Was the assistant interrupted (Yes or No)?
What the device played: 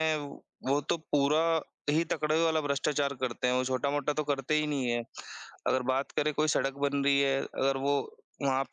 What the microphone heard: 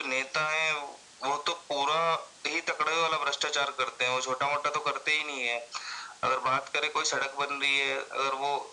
No